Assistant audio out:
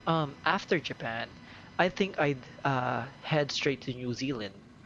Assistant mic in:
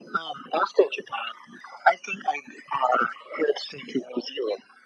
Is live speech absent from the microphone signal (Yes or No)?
Yes